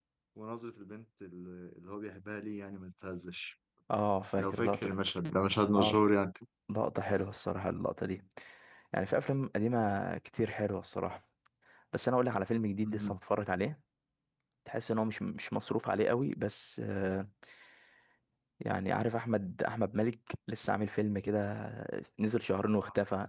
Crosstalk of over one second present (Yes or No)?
No